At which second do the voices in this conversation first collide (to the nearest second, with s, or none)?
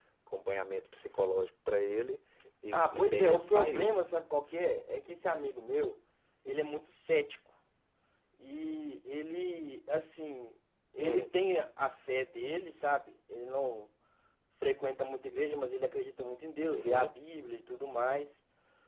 3 s